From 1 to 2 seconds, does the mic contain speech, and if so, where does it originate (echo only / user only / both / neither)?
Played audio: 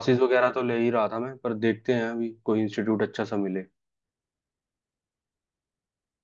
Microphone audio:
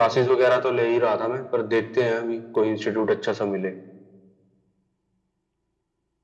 echo only